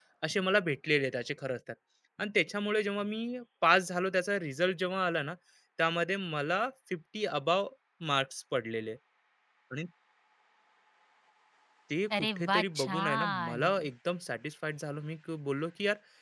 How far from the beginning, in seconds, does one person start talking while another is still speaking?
12.2 s

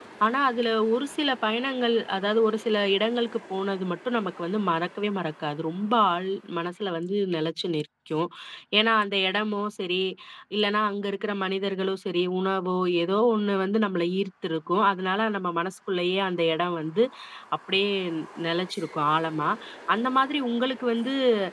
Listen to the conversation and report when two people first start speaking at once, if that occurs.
none

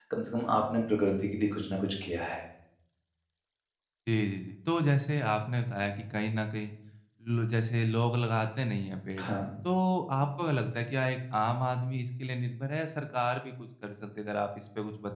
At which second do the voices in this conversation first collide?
none

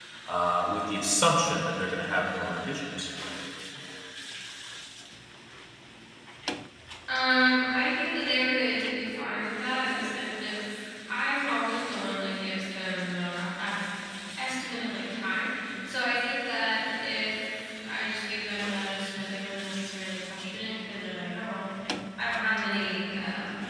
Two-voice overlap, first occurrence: none

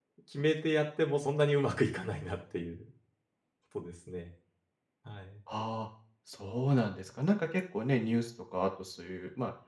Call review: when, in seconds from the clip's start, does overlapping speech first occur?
none

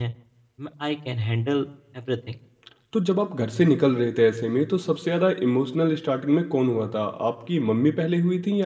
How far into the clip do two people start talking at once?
none

